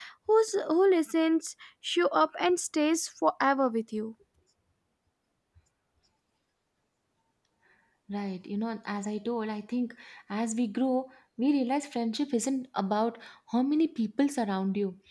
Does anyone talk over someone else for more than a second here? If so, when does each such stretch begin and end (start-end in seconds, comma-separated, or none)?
none